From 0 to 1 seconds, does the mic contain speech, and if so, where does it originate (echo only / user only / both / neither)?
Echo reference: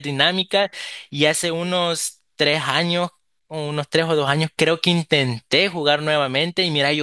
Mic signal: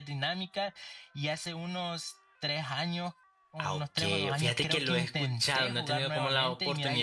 echo only